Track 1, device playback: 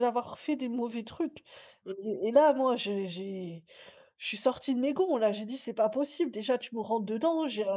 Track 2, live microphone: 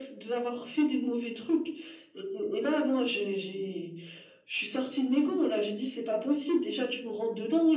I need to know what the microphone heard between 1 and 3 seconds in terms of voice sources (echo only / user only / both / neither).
echo only